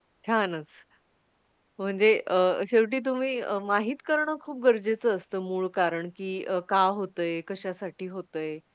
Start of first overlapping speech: none

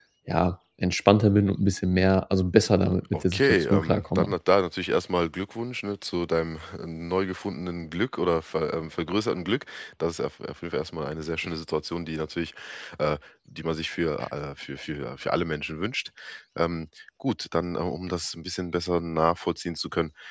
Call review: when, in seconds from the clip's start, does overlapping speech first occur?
3 s

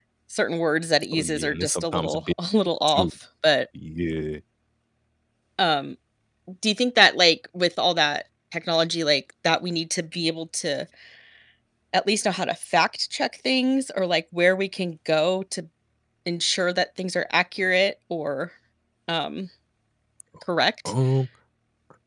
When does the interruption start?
1 s

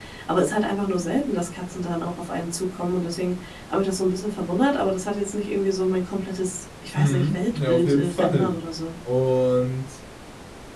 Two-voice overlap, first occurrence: 7 s

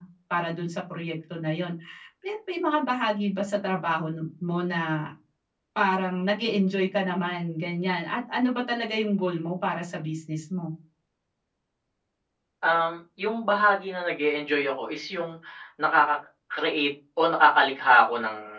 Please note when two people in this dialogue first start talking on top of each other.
none

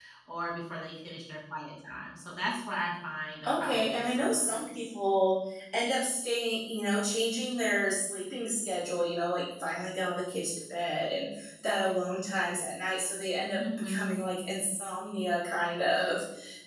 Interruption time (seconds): 3 s

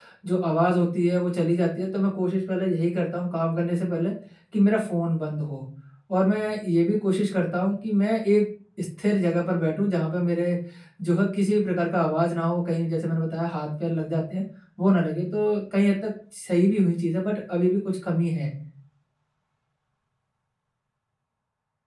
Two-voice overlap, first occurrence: none

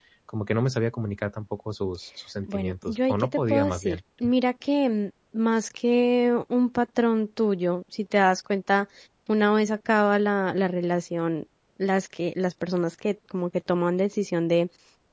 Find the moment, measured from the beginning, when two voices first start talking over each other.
2 s

